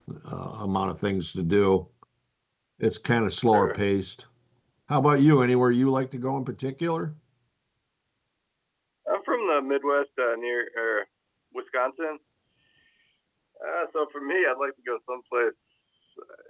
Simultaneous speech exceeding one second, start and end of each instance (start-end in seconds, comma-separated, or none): none